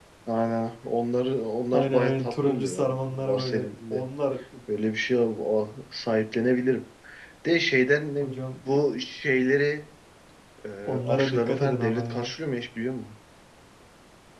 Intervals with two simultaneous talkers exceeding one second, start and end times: 1.7-4.0, 11.0-12.3

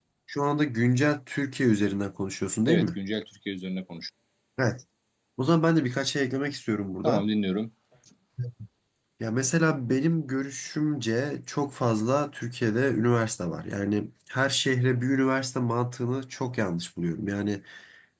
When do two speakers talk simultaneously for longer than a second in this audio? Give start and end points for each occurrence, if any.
none

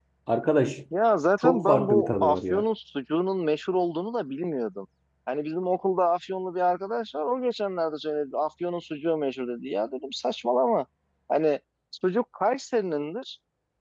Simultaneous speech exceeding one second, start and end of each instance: 1.4-2.6

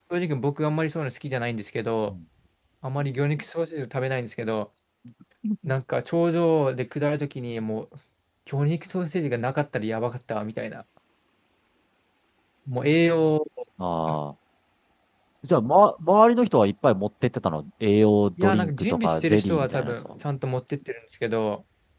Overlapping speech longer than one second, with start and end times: 18.4-20.1

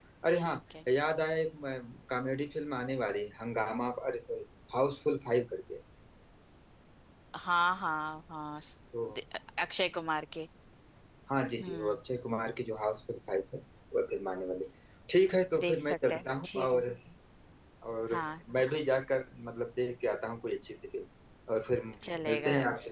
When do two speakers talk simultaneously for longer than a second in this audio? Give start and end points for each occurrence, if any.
15.6-16.8

